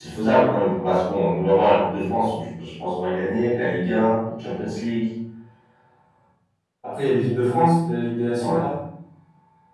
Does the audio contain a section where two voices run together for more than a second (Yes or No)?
No